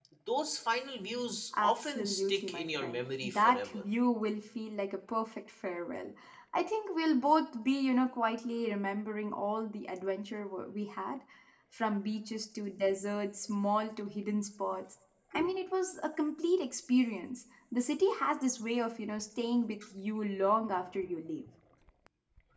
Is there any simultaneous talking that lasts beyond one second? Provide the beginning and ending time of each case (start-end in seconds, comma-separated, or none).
1.6-3.8